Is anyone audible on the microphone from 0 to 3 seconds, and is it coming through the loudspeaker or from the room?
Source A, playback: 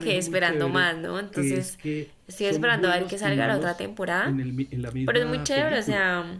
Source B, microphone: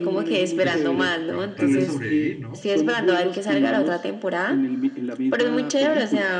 both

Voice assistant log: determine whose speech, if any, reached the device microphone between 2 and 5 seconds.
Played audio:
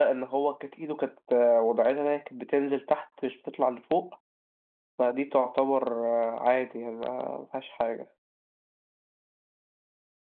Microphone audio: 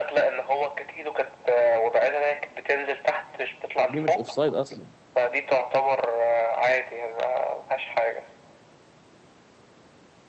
both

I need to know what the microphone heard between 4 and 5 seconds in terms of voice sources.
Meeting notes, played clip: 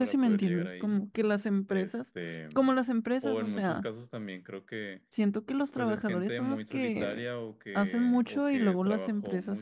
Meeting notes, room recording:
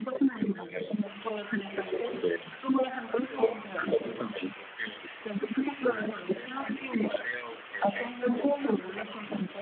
echo only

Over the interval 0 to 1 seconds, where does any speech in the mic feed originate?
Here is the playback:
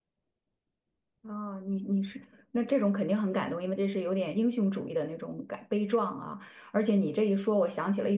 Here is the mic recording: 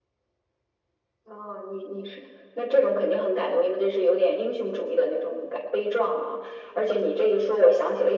neither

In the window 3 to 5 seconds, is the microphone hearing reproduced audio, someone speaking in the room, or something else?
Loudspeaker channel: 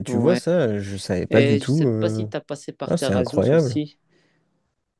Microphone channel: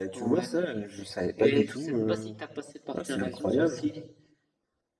echo only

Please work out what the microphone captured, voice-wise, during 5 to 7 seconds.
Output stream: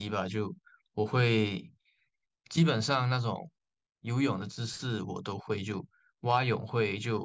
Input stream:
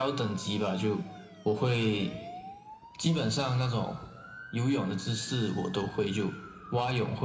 echo only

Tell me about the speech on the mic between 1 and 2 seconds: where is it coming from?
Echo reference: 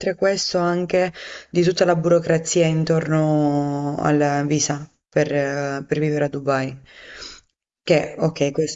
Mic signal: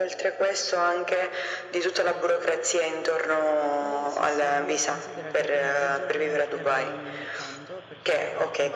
echo only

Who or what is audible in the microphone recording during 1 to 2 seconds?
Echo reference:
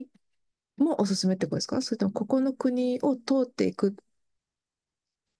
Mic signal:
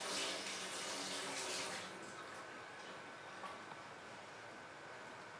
neither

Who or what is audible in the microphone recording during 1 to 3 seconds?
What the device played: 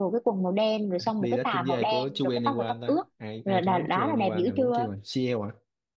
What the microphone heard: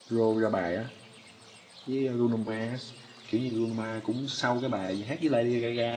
user only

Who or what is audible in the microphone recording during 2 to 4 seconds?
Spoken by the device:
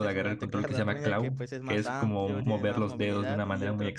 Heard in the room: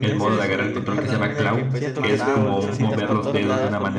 both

